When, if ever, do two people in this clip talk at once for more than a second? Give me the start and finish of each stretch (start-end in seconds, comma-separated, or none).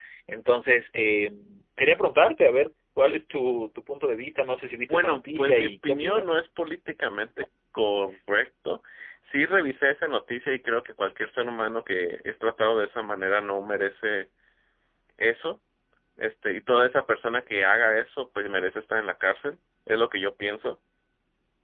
4.9-6.3